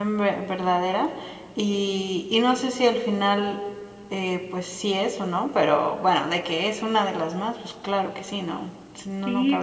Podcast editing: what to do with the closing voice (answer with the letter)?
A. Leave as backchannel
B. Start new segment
B